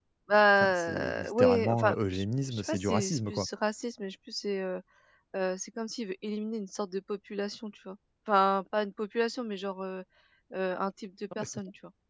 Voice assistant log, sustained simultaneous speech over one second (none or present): present